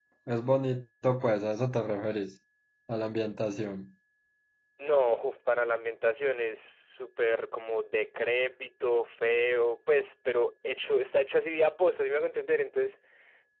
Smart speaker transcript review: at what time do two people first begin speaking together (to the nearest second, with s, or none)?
none